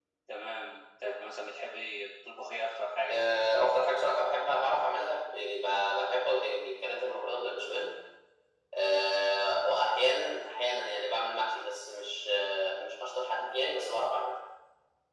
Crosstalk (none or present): none